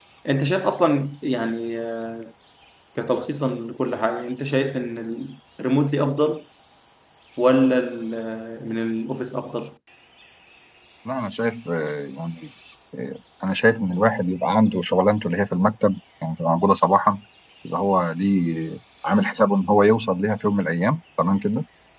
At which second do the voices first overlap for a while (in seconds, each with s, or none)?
none